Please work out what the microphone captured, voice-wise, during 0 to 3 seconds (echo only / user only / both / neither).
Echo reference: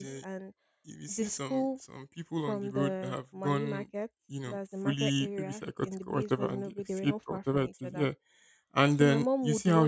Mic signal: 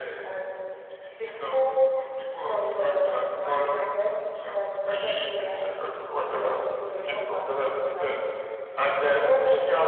echo only